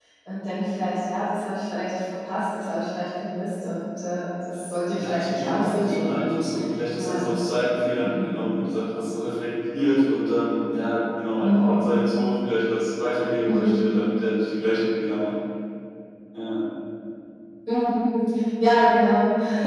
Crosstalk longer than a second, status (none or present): present